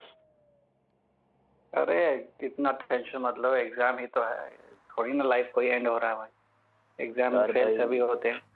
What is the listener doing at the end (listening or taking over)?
listening